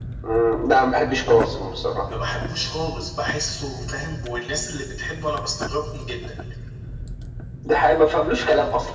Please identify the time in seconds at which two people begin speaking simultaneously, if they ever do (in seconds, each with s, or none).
none